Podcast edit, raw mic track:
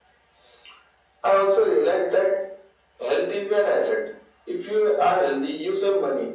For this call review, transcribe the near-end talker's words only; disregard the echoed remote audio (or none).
none